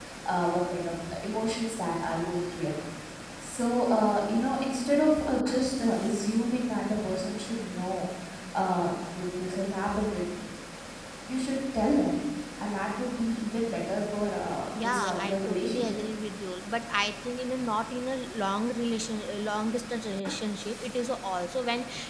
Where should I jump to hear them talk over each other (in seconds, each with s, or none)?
14.8 s